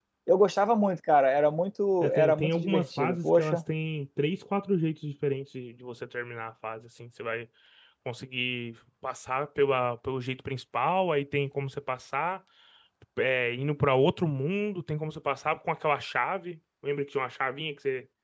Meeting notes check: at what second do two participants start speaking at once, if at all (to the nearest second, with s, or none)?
2 s